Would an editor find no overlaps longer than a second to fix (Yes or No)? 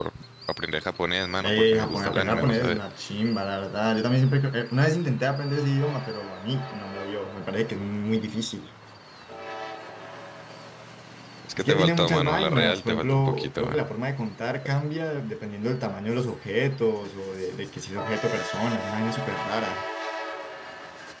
No